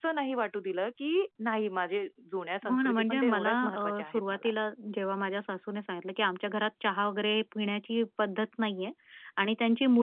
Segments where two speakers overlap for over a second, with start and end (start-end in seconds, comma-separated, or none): 2.7-4.5